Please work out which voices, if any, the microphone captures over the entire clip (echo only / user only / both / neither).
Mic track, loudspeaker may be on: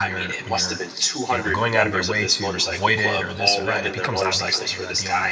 both